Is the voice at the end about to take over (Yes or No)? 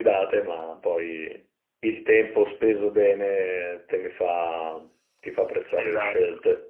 Yes